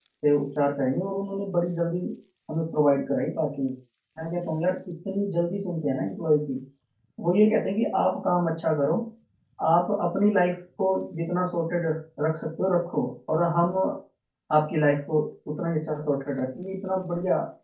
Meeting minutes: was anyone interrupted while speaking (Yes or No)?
No